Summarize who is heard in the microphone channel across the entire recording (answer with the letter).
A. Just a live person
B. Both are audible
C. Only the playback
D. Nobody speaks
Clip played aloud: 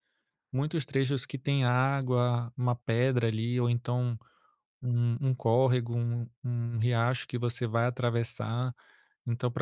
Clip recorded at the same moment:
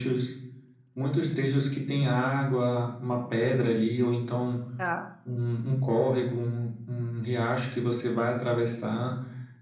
B